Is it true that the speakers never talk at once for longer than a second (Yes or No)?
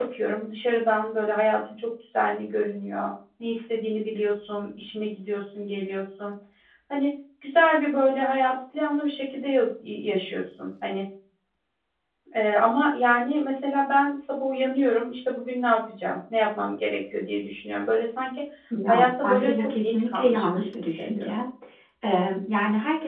No